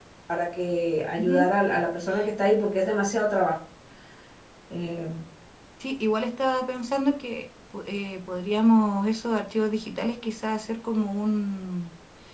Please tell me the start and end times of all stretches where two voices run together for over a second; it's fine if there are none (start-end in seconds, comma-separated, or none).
none